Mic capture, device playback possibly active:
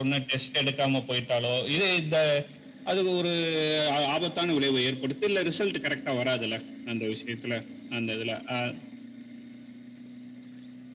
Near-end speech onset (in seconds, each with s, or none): none